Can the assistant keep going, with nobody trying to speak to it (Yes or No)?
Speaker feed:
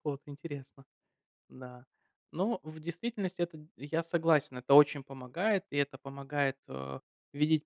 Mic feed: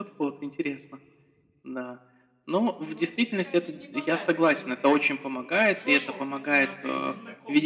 No